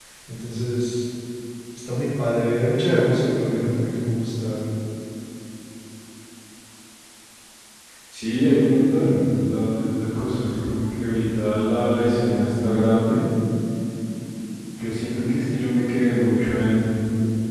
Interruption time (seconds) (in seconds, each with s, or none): none